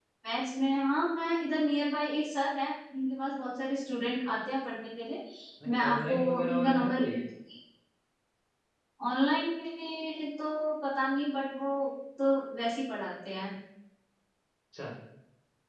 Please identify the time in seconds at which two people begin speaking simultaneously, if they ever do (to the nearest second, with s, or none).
6 s